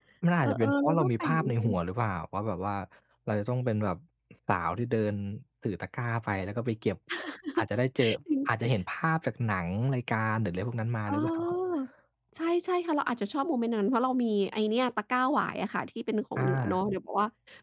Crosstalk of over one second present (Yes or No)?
Yes